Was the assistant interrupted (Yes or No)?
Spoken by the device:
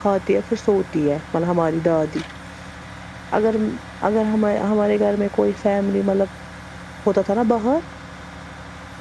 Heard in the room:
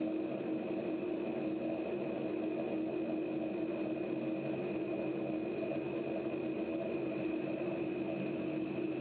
No